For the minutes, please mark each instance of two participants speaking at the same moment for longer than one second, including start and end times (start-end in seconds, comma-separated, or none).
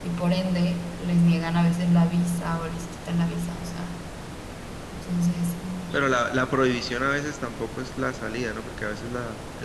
none